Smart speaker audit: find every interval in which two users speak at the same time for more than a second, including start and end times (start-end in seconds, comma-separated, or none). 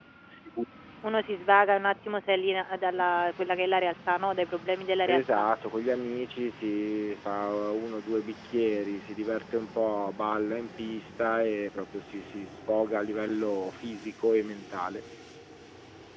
none